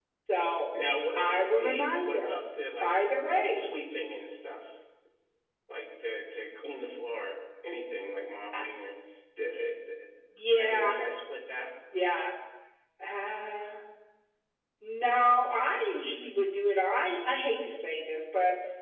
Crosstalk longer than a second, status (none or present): present